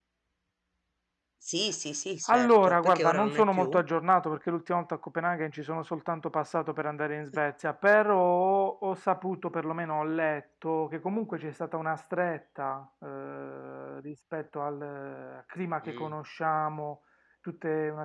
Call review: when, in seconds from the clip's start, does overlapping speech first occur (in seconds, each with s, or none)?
2.3 s